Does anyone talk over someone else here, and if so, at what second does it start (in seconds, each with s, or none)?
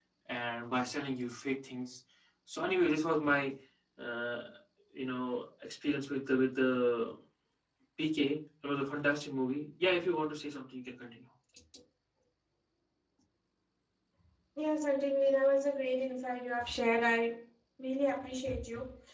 none